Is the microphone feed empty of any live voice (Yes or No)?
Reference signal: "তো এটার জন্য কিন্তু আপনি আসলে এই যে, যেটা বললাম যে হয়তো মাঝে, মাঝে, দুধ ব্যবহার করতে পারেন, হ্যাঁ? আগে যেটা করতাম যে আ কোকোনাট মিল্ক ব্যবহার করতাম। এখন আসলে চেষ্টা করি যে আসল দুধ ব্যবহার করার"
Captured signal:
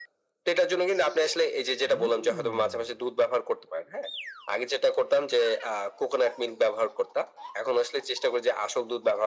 Yes